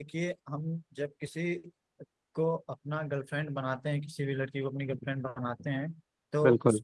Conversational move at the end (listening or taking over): listening